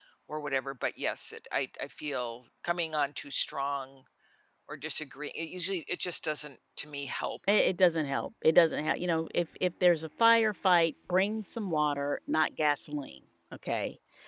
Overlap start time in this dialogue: none

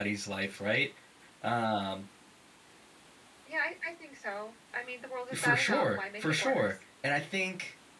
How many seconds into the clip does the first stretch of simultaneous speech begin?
5.3 s

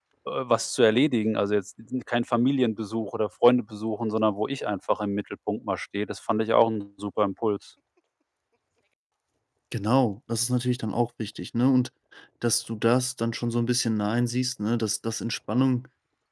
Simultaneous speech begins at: none

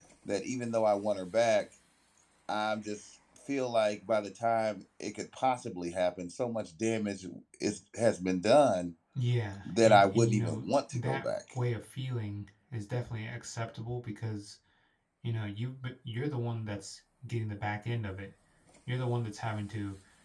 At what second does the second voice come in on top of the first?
9.7 s

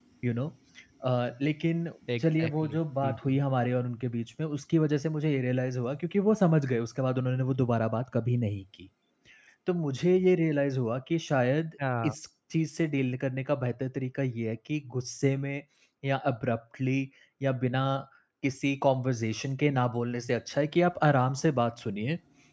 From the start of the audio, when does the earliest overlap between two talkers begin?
2.2 s

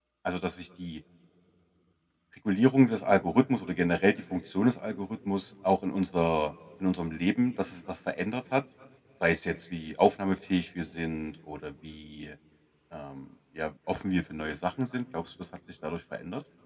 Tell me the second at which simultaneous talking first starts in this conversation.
none

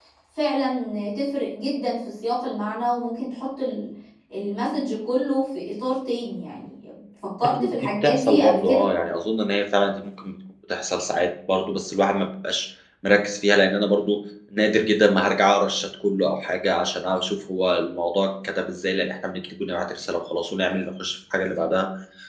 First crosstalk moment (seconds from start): 7.4 s

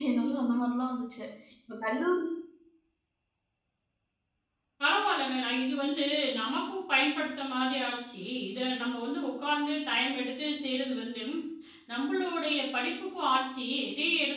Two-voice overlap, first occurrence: none

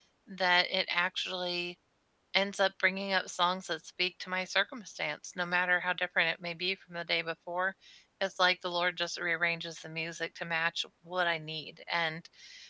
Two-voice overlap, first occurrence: none

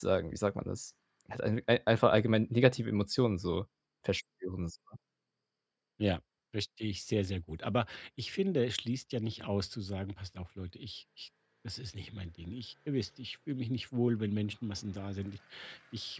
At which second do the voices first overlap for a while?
none

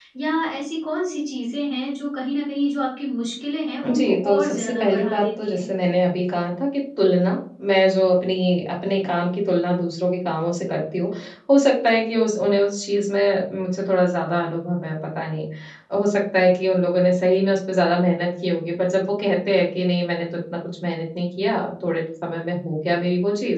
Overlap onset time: 3.8 s

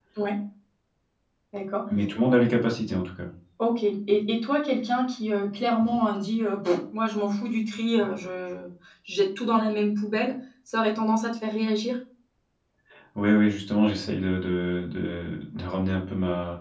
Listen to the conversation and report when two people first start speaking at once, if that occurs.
none

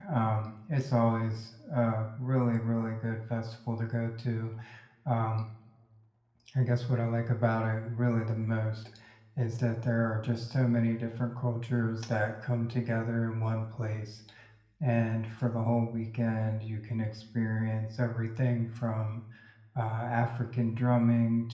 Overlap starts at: none

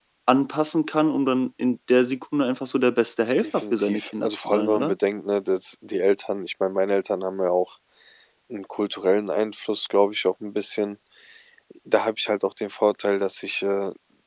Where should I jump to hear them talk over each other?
3.4 s

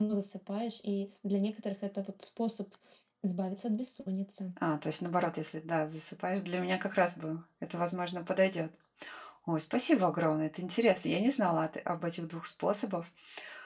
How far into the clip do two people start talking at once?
none

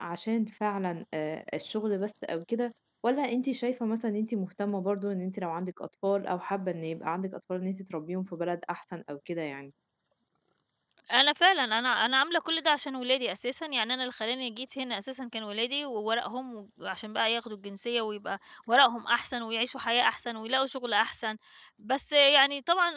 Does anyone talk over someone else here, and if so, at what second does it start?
none

